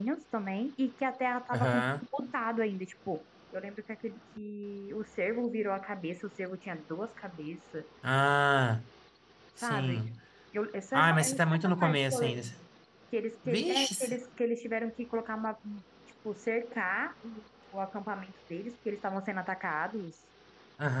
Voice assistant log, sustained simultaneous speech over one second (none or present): present